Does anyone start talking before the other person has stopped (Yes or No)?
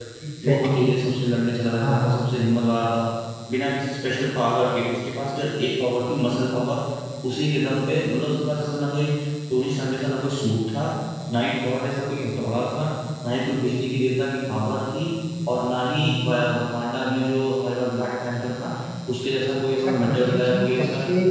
Yes